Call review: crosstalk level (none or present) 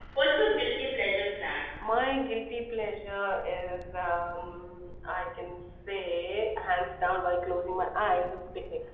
none